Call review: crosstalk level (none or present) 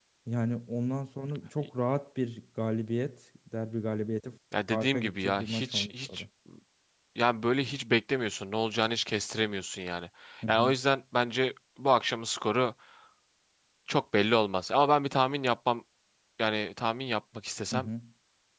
present